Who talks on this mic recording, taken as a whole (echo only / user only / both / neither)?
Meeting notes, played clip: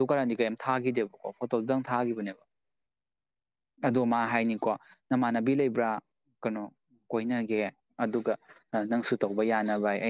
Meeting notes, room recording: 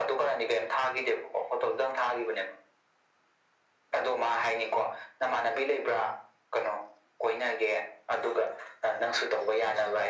echo only